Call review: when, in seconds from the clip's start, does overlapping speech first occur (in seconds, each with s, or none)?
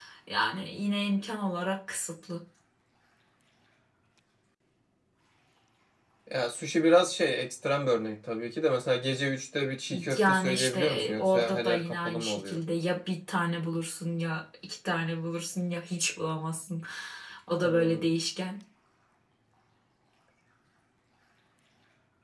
10.2 s